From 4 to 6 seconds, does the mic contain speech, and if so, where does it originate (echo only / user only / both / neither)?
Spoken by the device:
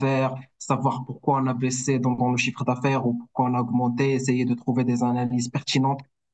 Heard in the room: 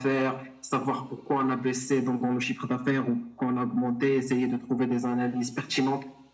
echo only